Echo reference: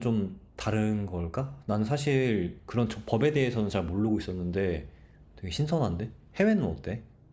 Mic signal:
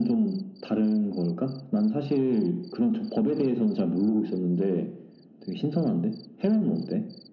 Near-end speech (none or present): none